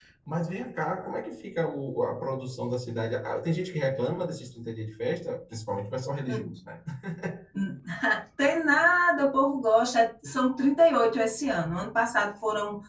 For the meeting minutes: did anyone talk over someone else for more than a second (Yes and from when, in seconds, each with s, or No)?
No